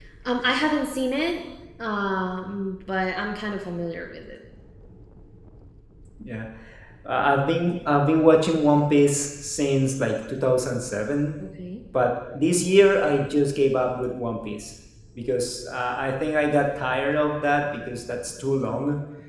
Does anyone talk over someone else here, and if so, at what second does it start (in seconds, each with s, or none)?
none